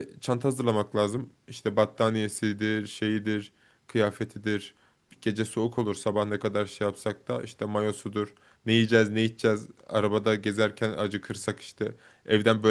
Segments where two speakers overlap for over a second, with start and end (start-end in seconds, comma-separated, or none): none